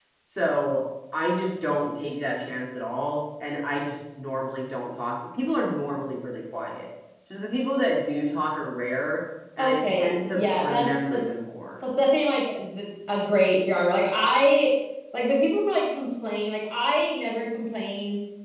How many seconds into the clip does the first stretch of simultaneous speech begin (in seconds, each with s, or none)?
9.6 s